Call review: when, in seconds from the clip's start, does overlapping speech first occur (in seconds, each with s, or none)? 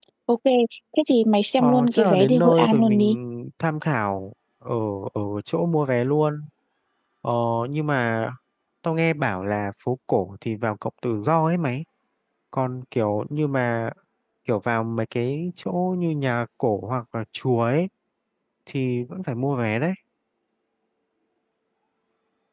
1.6 s